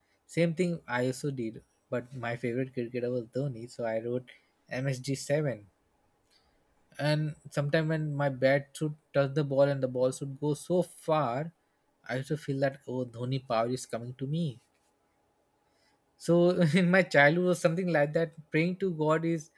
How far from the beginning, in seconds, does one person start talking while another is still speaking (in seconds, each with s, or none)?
none